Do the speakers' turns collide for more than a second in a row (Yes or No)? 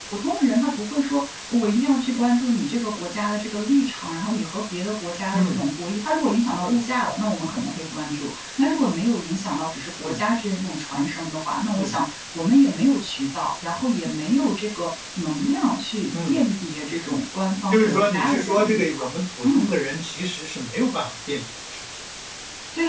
Yes